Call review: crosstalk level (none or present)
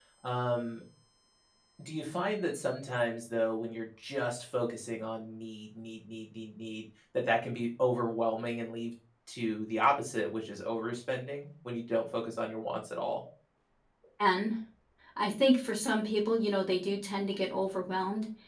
none